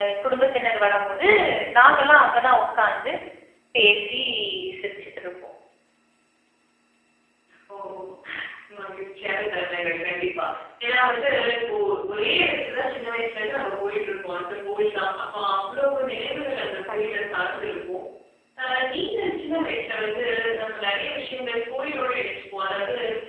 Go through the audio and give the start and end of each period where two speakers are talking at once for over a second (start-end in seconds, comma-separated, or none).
none